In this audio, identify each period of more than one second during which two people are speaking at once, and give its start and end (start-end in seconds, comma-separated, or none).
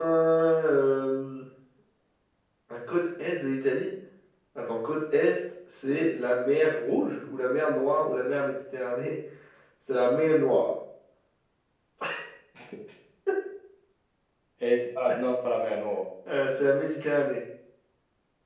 none